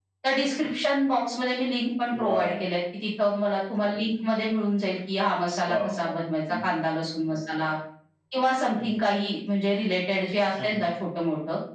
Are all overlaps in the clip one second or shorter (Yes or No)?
Yes